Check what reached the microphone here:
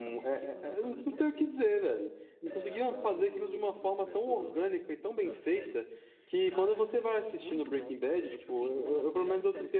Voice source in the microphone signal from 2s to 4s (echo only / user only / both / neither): both